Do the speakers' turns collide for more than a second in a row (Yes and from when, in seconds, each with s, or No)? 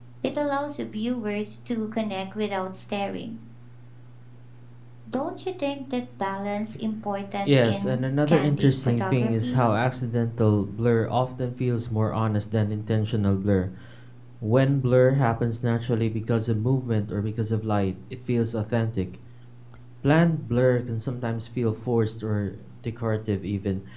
Yes, from 7.5 s